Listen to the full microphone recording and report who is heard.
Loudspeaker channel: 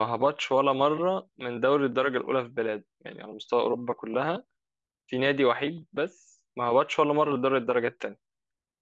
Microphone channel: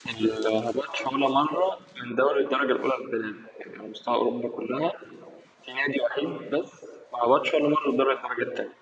echo only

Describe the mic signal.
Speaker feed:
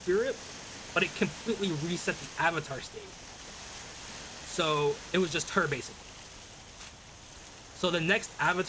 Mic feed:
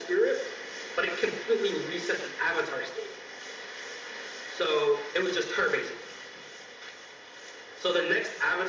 echo only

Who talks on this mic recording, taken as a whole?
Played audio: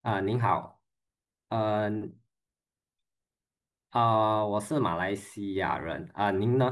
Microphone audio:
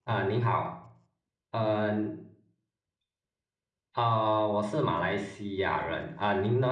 echo only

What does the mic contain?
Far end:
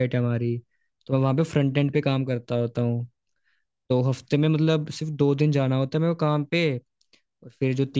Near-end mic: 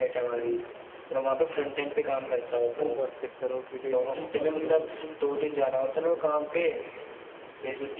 both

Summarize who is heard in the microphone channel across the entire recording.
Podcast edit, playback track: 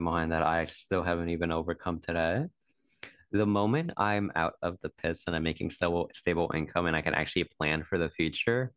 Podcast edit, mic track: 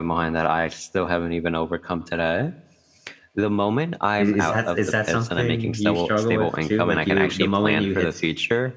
both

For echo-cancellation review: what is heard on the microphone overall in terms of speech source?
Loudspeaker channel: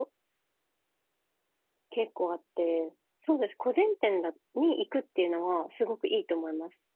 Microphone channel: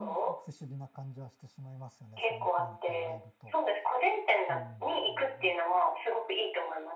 both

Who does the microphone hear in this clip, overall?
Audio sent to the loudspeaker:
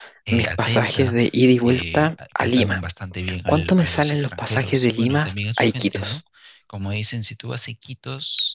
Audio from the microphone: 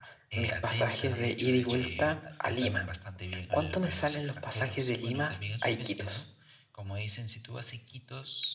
both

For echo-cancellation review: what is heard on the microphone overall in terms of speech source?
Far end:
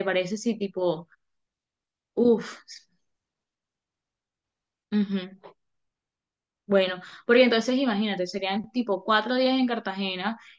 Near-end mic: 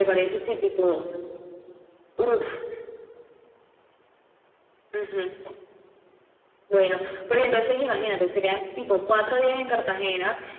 echo only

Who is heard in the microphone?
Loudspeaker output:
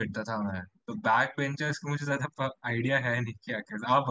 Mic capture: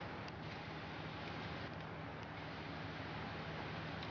neither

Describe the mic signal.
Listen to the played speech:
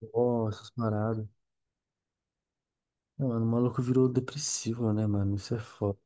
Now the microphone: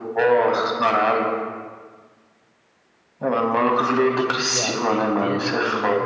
both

